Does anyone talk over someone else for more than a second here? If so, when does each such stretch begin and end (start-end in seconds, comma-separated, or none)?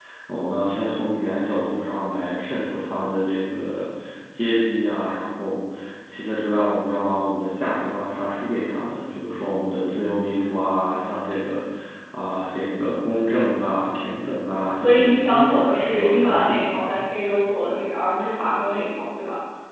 14.8-17.0